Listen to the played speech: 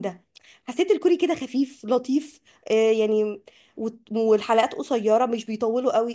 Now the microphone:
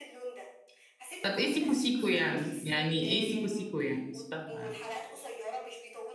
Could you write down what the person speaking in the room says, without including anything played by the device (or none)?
طب ايه سيكو سيكو يعني يعني ايه سيكو سيكو يعني مش فاهمه يعني